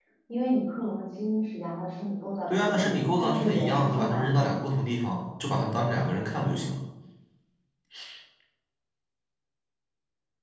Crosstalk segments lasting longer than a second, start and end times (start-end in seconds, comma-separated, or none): 2.5-4.8